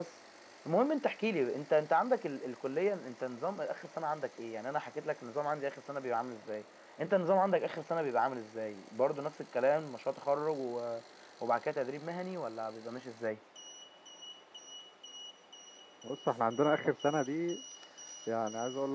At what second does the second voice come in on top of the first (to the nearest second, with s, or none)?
none